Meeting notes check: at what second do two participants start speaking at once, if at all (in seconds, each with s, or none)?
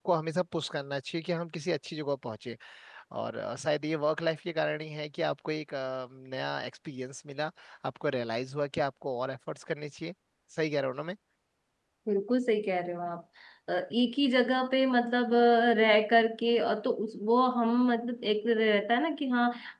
none